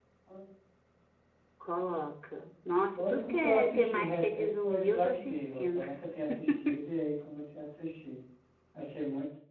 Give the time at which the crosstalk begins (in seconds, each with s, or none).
2.9 s